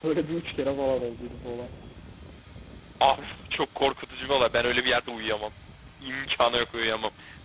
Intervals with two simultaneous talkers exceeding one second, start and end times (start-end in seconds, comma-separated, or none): none